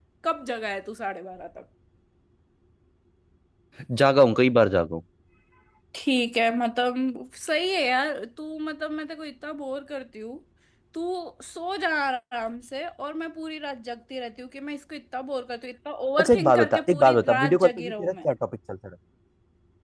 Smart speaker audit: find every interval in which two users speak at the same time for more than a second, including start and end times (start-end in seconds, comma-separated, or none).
16.2-18.1